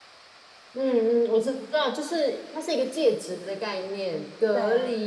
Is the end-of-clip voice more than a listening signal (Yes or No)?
No